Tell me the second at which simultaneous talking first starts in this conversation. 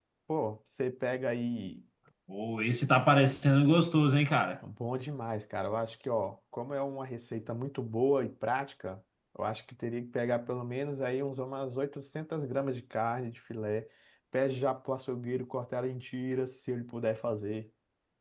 none

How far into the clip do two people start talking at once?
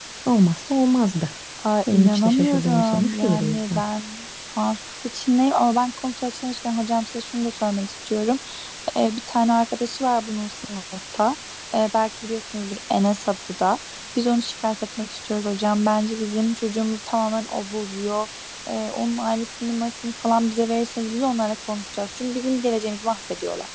1.9 s

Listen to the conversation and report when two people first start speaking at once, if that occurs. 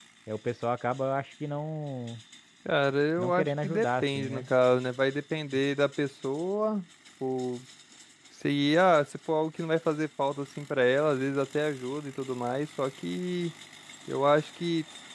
3.2 s

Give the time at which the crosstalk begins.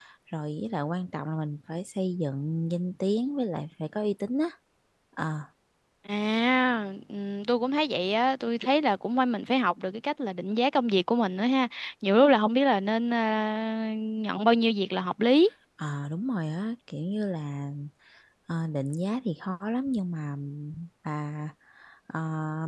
none

